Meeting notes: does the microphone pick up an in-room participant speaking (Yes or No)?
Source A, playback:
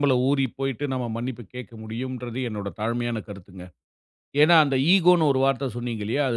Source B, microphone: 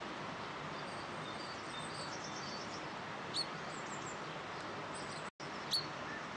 No